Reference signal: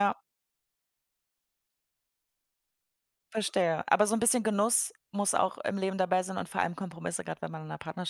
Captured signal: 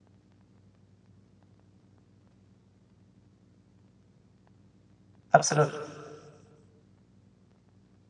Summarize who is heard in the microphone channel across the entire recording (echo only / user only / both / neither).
user only